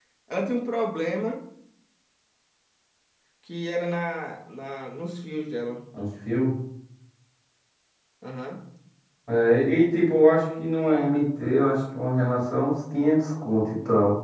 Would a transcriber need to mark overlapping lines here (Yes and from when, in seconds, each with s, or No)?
No